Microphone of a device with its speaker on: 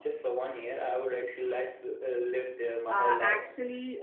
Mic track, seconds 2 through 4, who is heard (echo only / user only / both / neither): both